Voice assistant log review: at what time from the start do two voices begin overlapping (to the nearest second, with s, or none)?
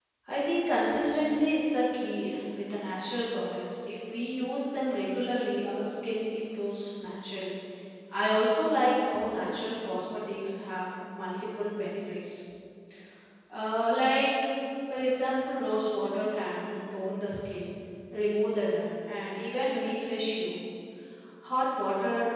none